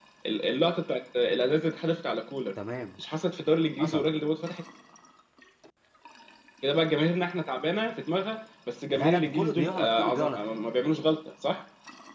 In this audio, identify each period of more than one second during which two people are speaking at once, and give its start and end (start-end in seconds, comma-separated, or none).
8.9-10.4